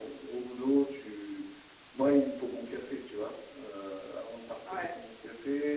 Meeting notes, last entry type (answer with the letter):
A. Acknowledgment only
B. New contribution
A